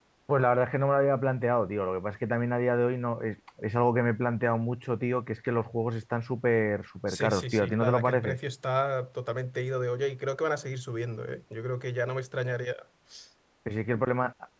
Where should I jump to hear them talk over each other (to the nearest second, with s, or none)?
7 s